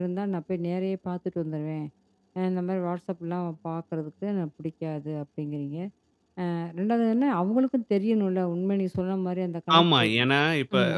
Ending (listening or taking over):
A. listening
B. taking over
B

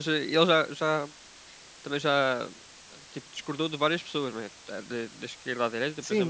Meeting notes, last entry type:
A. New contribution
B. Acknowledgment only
A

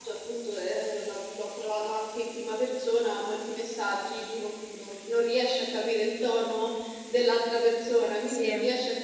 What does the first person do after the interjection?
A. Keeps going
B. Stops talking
A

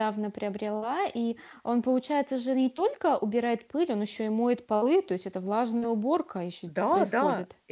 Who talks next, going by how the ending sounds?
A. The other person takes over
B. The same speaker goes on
A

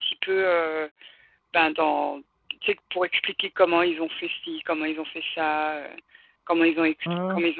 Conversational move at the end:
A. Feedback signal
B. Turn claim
A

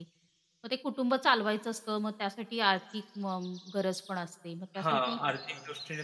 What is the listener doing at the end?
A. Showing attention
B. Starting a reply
B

